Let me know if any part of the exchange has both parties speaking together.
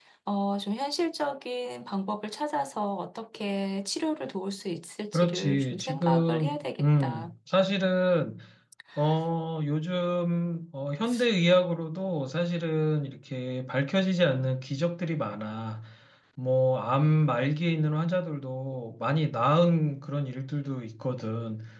Yes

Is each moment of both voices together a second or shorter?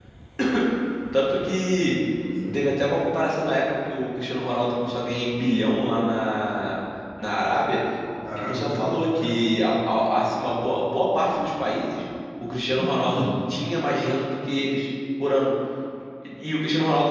Yes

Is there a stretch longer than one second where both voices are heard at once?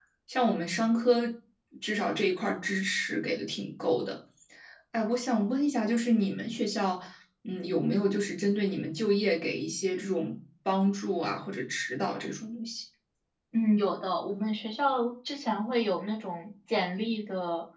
No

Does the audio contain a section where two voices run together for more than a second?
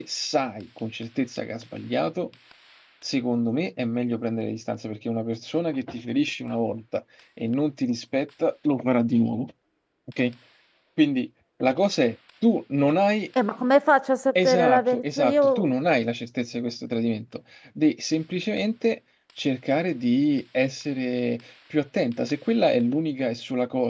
Yes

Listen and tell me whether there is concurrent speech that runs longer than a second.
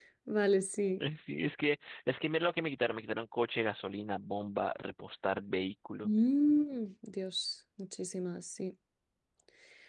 No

